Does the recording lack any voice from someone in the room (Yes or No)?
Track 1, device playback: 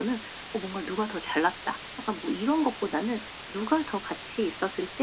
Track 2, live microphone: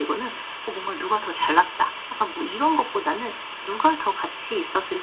Yes